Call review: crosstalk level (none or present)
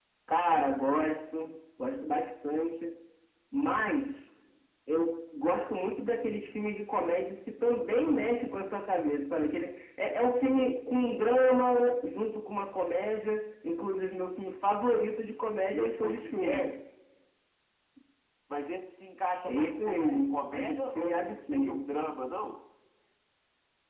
present